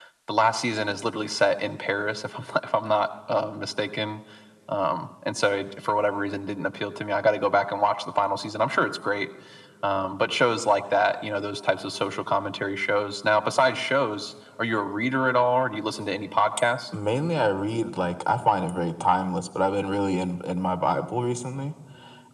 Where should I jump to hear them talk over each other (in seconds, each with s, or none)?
none